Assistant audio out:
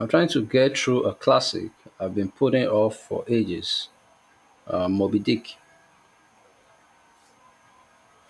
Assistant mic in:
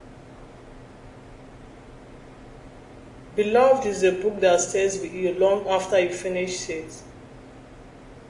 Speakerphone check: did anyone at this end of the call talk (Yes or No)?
Yes